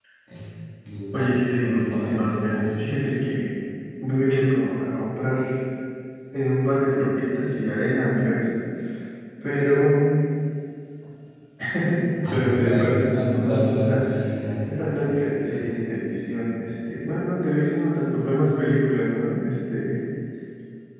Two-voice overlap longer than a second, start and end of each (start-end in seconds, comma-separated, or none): 1.1-2.6, 12.3-14.1